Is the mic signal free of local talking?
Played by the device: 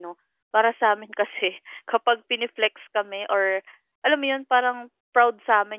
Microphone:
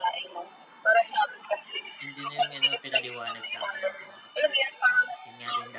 No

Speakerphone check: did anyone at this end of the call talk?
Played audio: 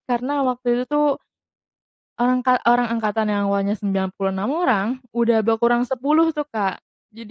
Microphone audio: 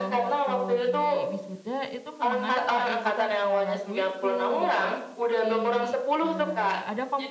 Yes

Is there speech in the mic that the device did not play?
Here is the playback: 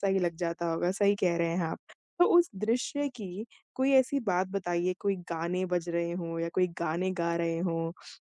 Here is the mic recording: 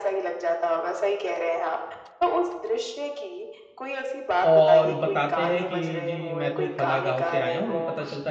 Yes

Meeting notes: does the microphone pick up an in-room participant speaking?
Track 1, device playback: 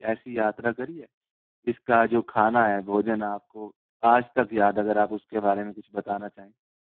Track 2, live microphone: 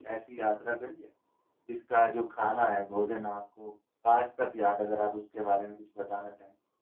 No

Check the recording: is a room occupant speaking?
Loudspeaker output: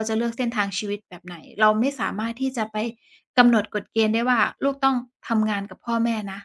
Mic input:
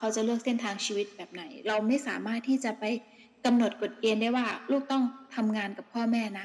No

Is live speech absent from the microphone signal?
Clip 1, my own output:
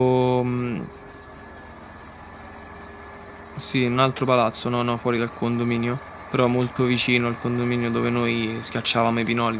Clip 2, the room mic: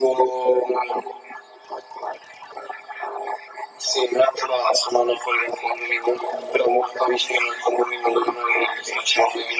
Yes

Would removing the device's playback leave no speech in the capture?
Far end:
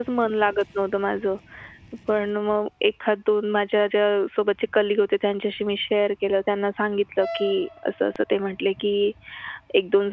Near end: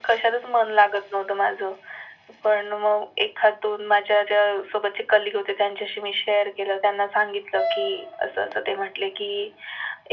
Yes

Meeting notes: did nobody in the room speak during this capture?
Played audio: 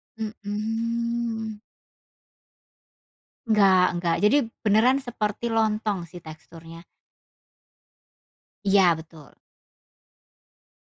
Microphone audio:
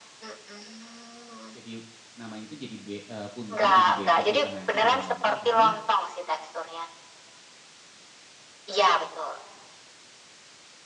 No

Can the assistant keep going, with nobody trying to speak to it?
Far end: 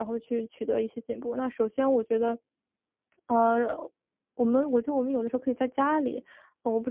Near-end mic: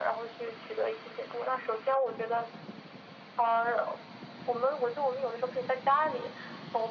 Yes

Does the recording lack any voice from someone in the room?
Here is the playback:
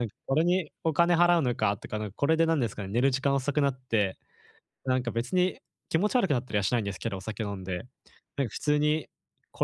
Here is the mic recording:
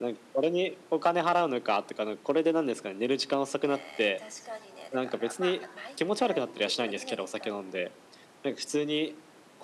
No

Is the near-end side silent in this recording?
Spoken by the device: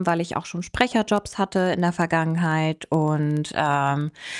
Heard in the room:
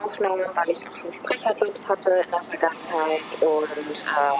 Yes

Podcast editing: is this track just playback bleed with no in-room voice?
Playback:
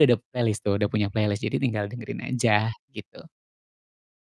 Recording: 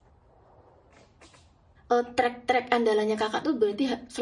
No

